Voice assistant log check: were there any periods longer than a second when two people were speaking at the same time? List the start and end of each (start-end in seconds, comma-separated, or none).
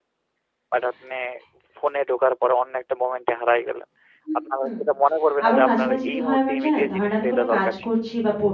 5.4-7.8